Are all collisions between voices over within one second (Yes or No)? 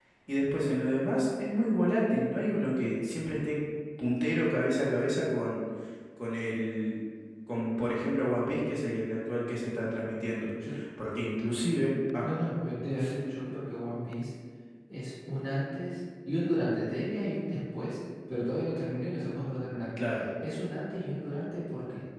Yes